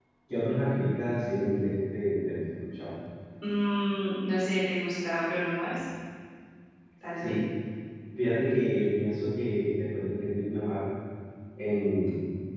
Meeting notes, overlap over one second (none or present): none